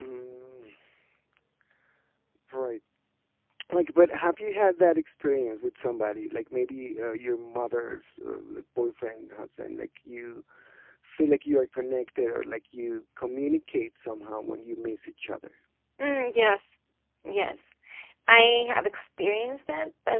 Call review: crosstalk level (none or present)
none